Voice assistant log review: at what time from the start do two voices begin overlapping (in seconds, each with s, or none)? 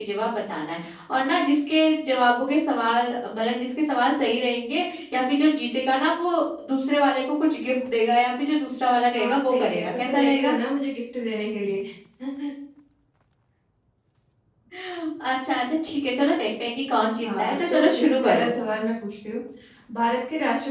9.2 s